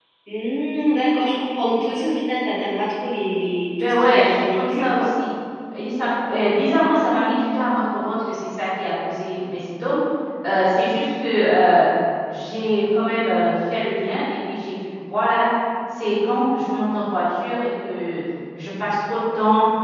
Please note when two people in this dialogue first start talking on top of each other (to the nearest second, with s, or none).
4 s